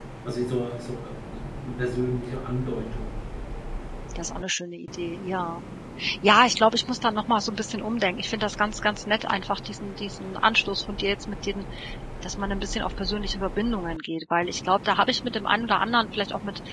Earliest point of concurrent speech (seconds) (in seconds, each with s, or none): none